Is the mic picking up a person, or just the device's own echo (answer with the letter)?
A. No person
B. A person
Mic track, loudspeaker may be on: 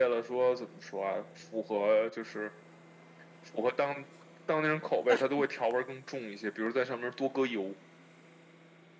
A